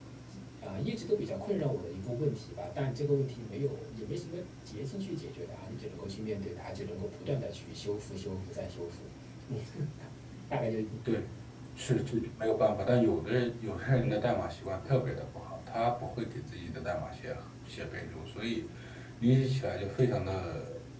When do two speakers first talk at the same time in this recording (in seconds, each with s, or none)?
none